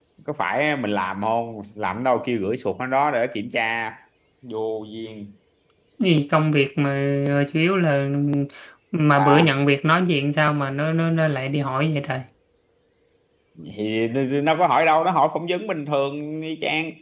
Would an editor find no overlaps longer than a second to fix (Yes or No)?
Yes